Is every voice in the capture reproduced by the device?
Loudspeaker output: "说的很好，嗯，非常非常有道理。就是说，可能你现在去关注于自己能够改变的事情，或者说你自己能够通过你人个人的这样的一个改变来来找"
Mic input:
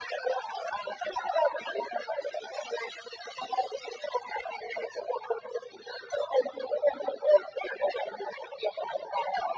Yes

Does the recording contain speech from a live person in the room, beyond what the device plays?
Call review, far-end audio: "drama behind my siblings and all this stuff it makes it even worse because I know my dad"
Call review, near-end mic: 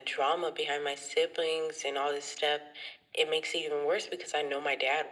No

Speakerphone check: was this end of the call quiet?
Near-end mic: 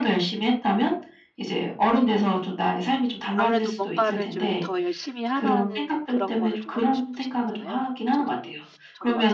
No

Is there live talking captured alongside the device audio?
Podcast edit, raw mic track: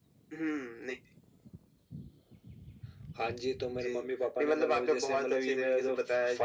No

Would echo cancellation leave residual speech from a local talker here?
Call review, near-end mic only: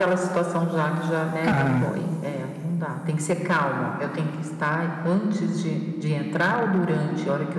Yes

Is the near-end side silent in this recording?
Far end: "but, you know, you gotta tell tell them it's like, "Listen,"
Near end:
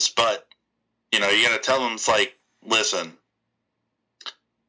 Yes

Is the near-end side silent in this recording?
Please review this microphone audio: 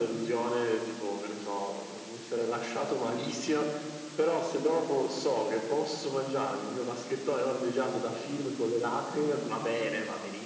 Yes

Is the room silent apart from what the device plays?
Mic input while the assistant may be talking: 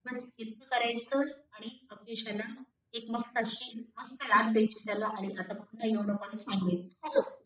Yes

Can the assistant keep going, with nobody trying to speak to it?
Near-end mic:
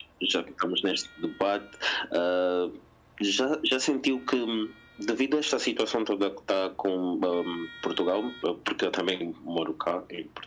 Yes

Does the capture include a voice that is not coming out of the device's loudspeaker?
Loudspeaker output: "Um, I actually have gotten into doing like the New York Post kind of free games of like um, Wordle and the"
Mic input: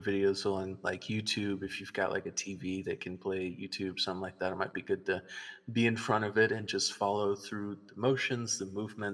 Yes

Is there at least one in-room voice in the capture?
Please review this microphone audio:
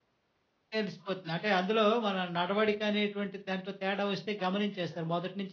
Yes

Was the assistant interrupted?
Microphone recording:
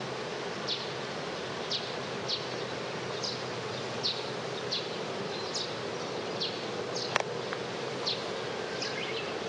No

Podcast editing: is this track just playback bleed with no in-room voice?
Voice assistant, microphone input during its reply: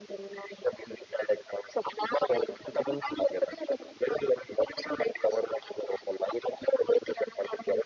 Yes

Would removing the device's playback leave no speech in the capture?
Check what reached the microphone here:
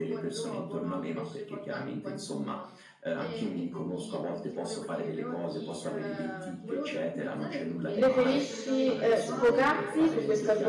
No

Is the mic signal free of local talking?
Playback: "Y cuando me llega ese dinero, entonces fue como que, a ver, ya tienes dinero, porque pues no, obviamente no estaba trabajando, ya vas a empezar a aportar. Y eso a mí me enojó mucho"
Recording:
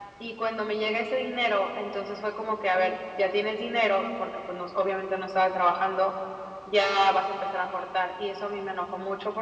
Yes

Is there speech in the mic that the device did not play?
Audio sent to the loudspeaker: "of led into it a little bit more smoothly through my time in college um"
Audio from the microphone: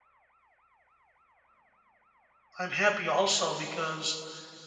Yes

